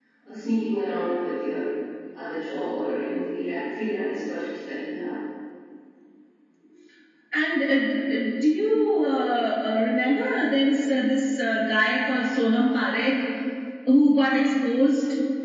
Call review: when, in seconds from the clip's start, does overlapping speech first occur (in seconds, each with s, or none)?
none